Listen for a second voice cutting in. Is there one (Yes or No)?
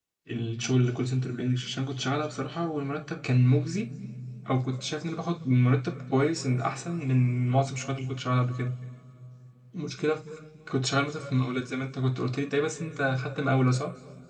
No